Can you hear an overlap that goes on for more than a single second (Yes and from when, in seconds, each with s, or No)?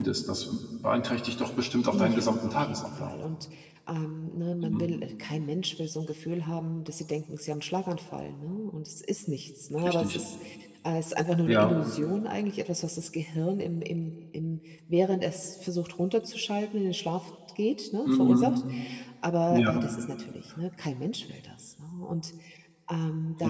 Yes, from 1.9 s